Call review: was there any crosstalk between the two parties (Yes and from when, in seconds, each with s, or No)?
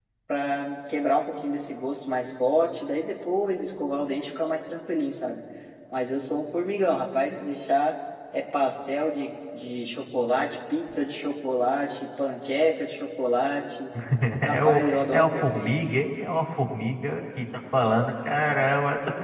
Yes, from 14.4 s